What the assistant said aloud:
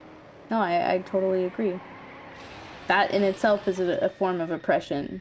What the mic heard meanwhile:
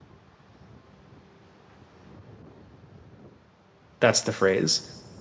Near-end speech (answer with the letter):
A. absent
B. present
B